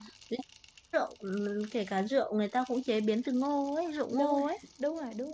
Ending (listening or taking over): taking over